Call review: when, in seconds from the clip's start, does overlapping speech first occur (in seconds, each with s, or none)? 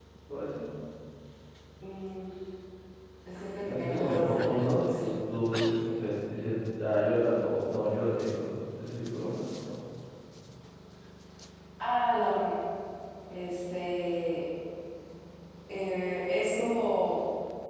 3.7 s